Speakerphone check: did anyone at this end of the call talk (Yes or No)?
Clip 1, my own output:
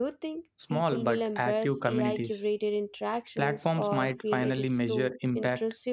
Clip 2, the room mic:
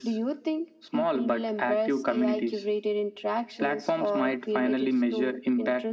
No